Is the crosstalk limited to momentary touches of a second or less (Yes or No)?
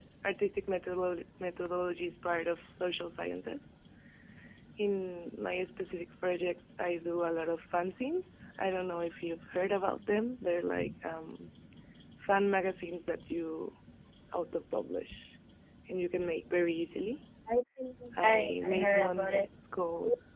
No